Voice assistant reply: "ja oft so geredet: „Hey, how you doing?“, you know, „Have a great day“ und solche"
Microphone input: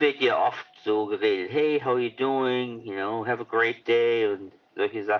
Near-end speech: none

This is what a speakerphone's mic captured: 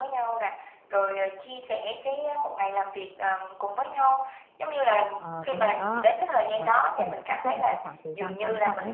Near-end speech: present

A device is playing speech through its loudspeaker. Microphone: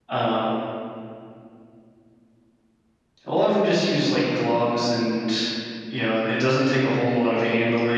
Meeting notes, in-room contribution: present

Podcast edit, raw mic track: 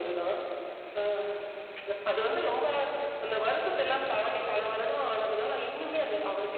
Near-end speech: none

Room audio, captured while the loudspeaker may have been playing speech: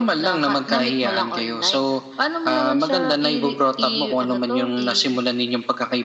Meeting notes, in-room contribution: none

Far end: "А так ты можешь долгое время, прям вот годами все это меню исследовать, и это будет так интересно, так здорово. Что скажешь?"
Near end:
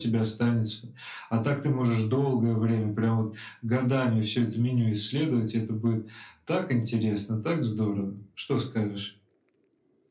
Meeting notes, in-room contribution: none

